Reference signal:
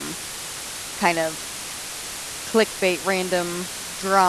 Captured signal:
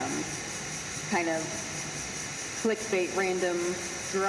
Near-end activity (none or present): none